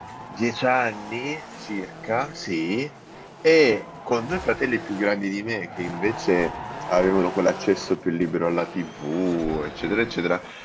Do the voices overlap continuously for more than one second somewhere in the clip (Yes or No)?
No